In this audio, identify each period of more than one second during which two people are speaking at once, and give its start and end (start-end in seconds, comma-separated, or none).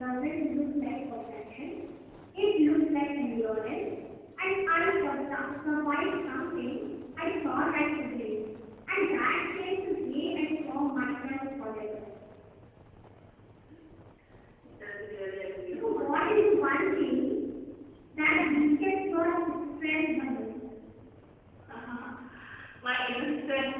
15.8-17.0